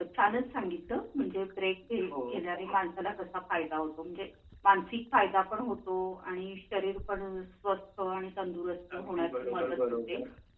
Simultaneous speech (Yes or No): Yes